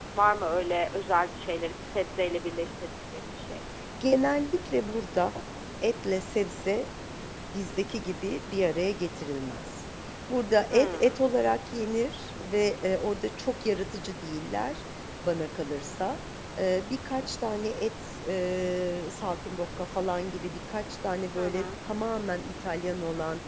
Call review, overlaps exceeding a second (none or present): none